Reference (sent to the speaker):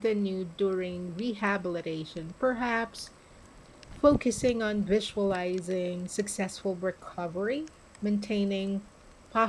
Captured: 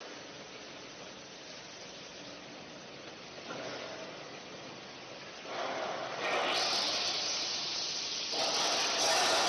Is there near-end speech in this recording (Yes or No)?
No